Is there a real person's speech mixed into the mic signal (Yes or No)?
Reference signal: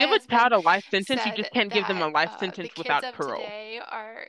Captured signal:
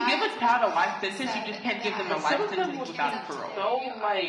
Yes